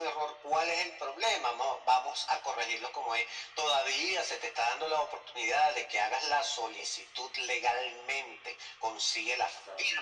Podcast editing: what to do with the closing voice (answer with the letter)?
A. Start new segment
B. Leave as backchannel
B